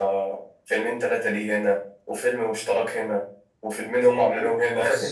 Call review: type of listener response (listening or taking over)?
taking over